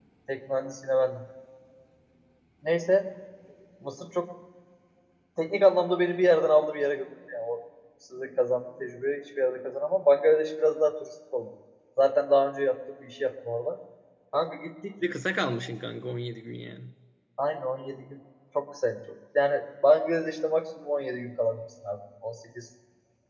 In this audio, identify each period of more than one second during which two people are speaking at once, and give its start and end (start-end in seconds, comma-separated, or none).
none